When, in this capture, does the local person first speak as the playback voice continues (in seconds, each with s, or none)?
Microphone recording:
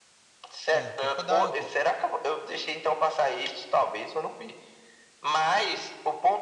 0.7 s